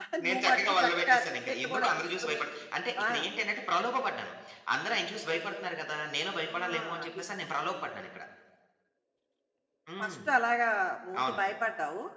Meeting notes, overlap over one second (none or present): present